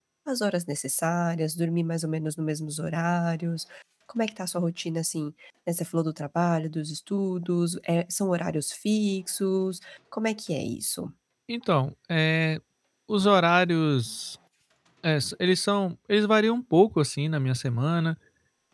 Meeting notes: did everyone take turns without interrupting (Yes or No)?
Yes